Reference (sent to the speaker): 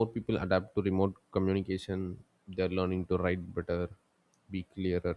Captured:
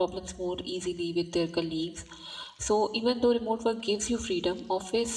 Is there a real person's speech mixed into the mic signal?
Yes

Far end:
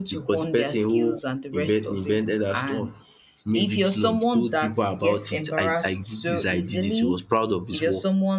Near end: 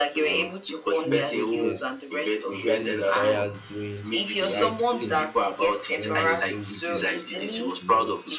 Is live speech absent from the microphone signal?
No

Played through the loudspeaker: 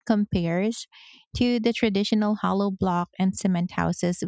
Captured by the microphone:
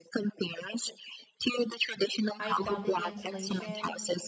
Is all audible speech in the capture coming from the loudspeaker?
No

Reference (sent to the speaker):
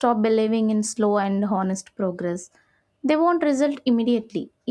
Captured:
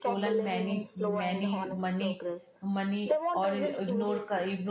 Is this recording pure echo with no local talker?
No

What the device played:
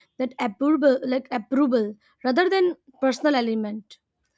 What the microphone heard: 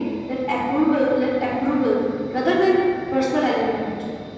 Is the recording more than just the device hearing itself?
No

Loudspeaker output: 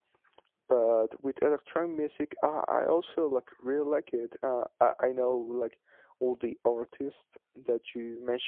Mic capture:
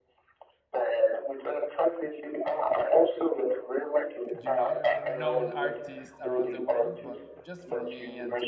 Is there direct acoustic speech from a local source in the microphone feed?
Yes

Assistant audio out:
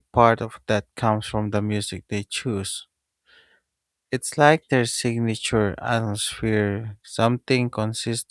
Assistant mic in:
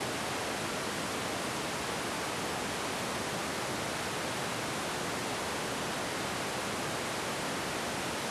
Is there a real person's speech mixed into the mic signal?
No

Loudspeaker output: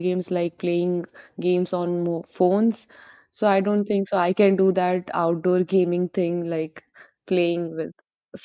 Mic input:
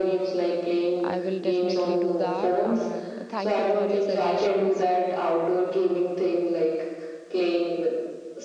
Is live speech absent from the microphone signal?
No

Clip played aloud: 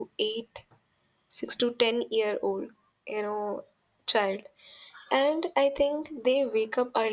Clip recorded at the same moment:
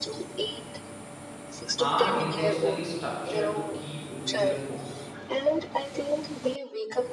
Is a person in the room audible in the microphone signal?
Yes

